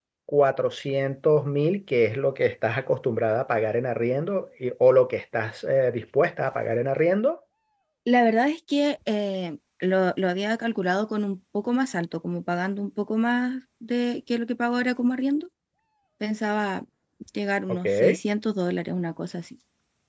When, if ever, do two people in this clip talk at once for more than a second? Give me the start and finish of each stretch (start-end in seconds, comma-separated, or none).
none